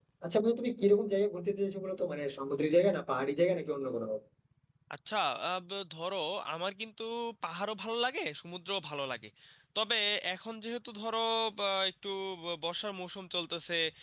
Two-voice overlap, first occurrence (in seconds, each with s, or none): none